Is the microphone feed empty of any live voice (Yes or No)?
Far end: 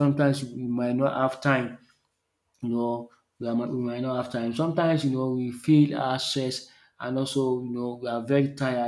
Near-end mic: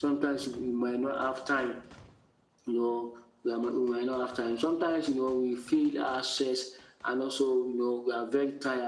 Yes